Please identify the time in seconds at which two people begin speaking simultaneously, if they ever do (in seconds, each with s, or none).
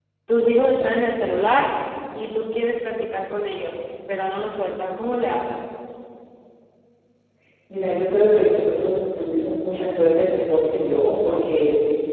none